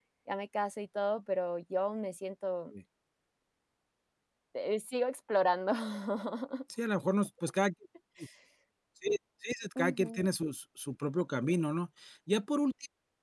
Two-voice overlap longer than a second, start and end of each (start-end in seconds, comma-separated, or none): none